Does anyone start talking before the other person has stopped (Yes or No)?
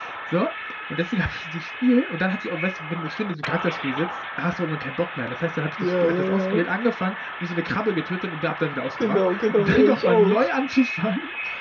Yes